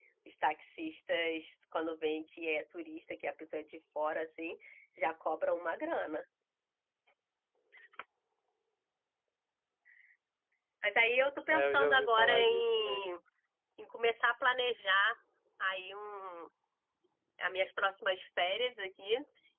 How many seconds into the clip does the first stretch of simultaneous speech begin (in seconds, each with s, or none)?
11.5 s